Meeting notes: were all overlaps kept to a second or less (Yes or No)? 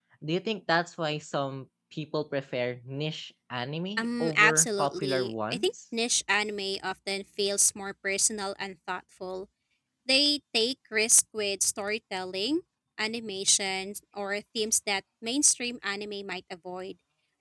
No